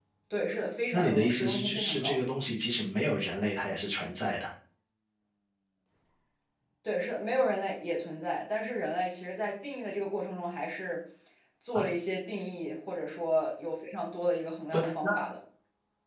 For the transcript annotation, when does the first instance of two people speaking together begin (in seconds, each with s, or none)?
0.9 s